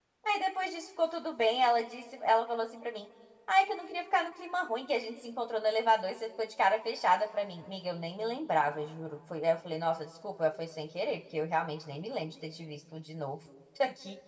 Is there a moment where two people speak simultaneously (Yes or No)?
No